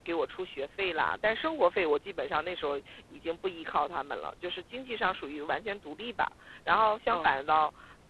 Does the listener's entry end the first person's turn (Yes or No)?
No